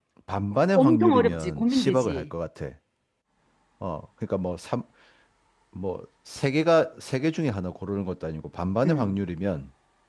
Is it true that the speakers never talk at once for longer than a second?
No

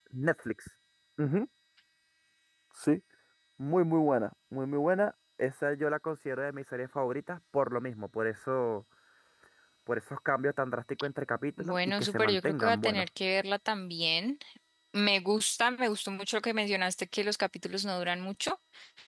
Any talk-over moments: Yes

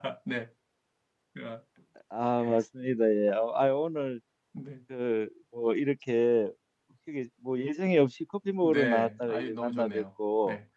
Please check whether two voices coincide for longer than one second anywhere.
Yes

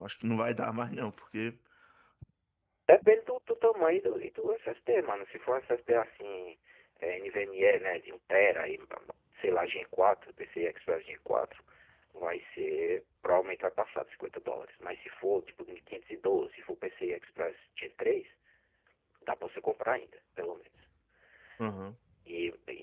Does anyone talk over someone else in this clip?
No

